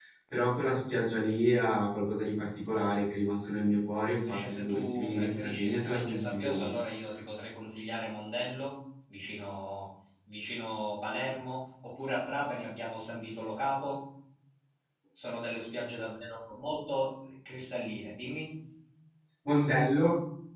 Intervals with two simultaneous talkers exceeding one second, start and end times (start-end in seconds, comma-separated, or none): 4.2-6.8